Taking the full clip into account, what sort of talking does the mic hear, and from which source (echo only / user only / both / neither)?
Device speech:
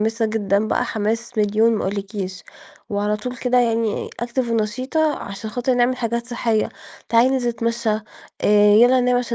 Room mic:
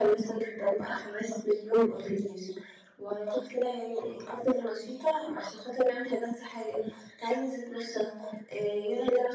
echo only